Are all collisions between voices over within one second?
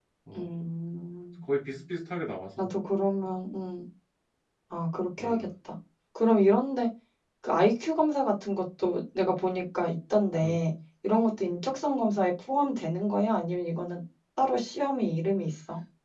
Yes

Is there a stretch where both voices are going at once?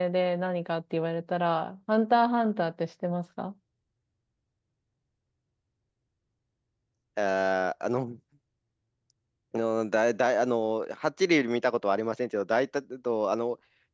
No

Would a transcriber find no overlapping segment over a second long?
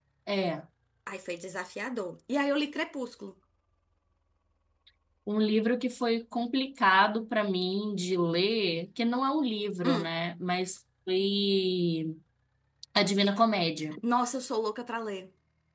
Yes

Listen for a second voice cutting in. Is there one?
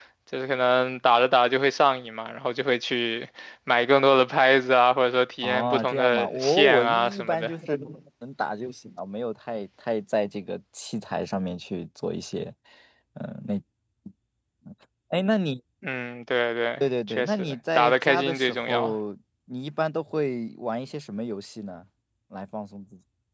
Yes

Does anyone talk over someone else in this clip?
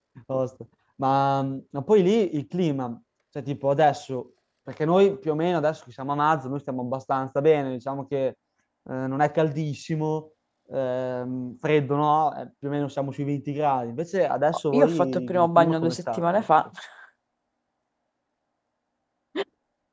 Yes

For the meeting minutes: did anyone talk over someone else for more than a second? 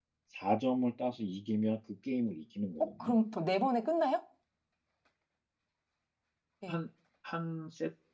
No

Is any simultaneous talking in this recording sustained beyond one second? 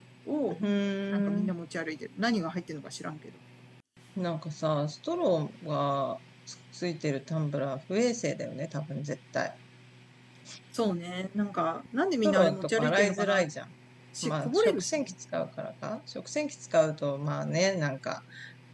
Yes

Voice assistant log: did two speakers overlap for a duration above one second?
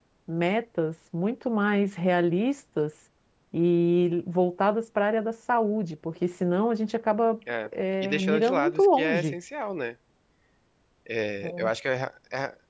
Yes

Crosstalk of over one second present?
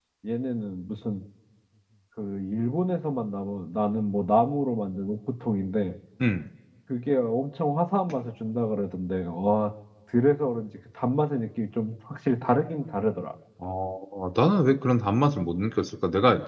No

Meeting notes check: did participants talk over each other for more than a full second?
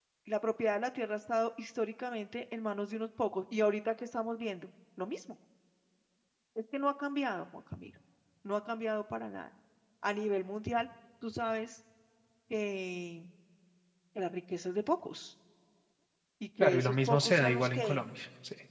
Yes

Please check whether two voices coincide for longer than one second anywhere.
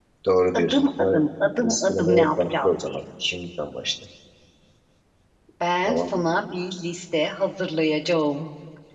Yes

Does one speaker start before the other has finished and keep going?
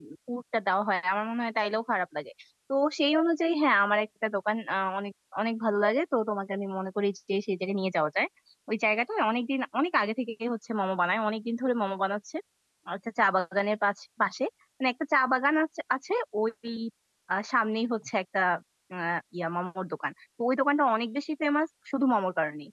No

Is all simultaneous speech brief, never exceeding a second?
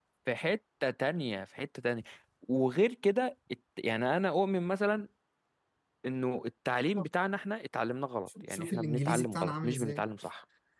No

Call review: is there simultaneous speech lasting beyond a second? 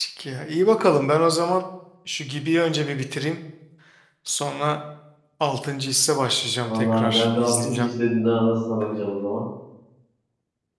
Yes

